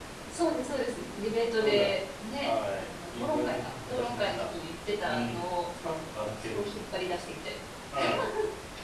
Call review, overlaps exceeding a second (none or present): present